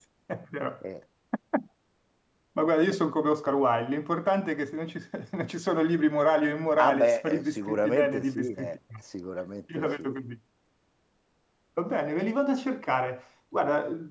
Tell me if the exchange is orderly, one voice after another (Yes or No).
No